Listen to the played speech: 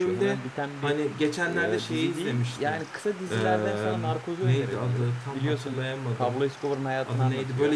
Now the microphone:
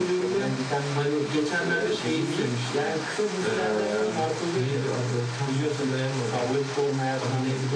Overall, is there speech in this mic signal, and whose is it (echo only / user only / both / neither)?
echo only